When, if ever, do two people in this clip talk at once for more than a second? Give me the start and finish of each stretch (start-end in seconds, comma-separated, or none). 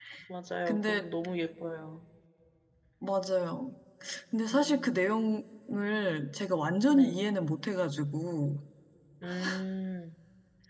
none